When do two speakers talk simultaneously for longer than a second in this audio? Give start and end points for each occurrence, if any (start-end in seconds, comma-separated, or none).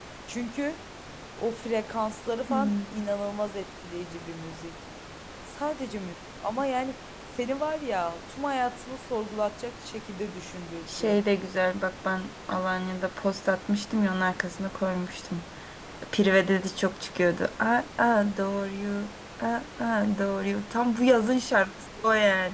none